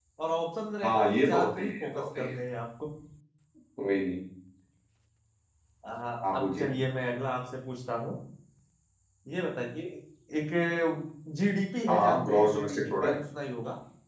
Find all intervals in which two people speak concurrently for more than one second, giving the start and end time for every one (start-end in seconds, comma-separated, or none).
0.8-2.3, 11.9-13.1